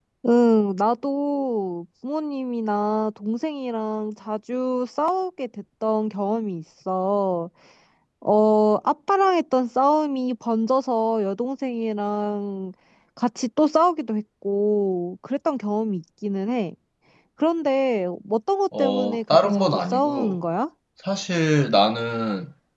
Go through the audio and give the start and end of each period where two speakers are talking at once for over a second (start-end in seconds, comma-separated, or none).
18.8-20.4